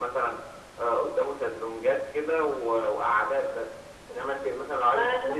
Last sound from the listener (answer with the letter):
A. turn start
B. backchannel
B